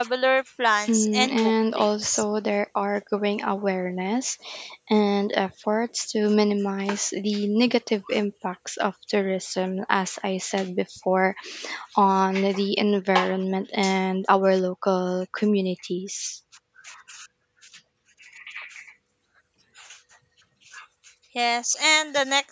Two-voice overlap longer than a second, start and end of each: 0.9-2.2

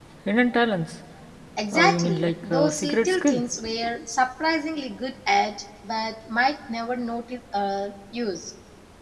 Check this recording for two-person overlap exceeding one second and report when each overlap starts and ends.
1.7-3.4

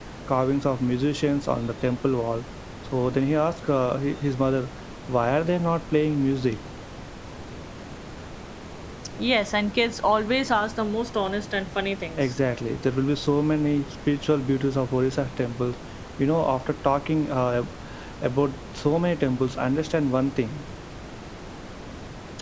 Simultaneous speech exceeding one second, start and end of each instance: none

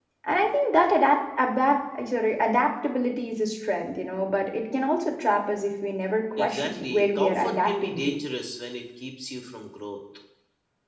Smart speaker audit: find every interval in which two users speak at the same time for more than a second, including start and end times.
6.4-8.2

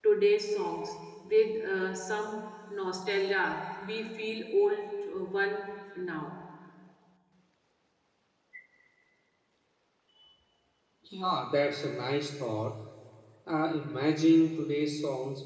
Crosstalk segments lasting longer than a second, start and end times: none

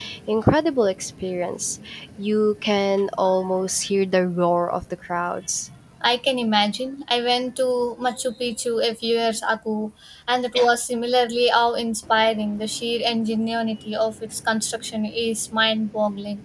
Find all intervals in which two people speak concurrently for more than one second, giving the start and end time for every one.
none

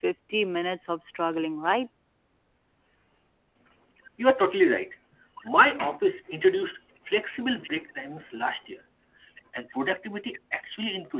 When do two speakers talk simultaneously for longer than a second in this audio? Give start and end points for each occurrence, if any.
none

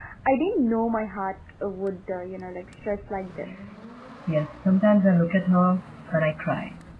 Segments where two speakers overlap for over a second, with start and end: none

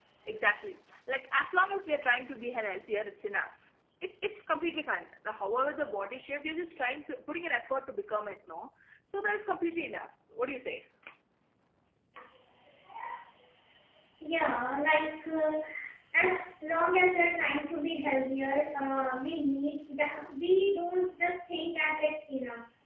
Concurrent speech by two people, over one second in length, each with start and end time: none

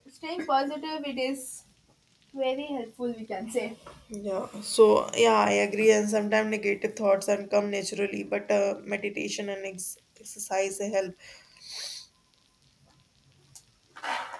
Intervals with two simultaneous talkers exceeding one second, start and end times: none

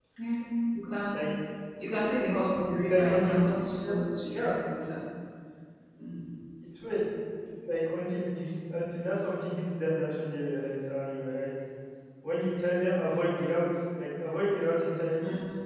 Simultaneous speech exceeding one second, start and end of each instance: 2.6-4.0

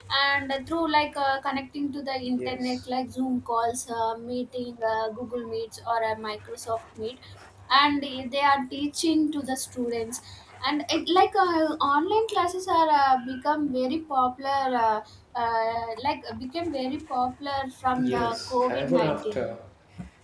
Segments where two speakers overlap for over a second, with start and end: 18.1-19.4

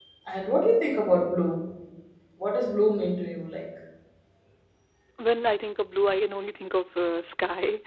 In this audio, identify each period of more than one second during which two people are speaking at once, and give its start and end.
none

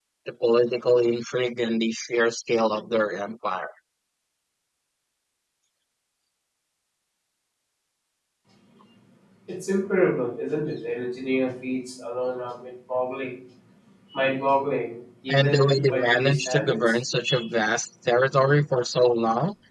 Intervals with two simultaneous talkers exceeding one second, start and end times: 15.3-16.9

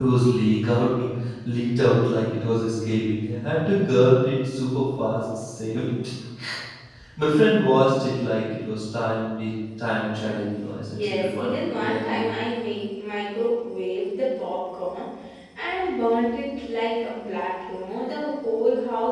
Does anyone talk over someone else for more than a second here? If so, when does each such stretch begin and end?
10.9-12.2

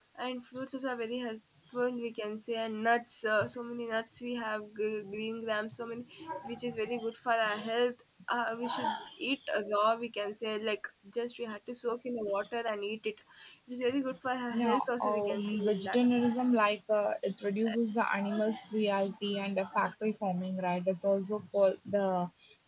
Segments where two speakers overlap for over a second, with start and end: 14.5-16.1

